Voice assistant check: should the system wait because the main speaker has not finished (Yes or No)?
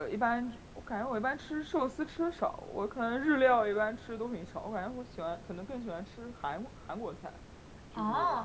No